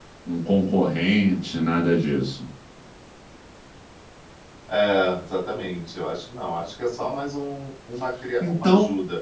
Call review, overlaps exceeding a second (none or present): none